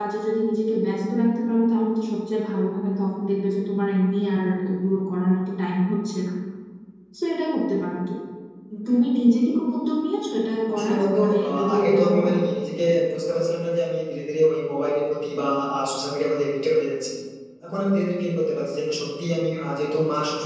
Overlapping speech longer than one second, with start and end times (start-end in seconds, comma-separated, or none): 10.7-12.3